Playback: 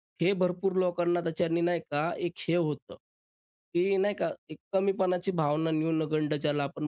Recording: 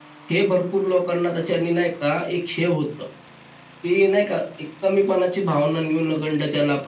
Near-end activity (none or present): none